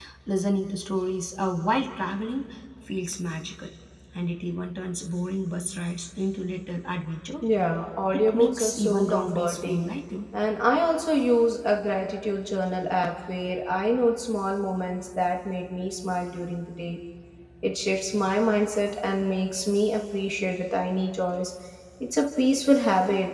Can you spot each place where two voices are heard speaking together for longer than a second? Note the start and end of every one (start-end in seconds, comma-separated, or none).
8.1-9.8